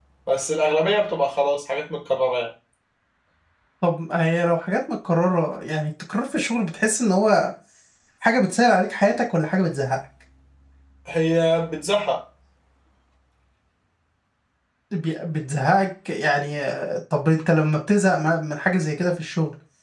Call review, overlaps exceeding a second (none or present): none